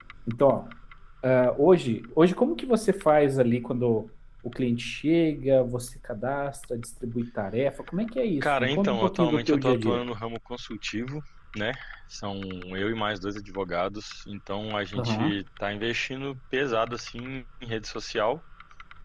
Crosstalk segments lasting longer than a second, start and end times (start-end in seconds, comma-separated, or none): 8.4-10.0